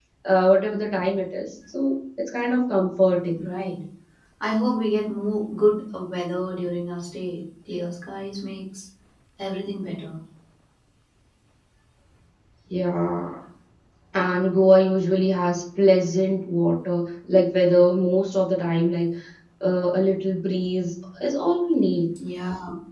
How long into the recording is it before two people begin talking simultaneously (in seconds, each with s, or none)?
none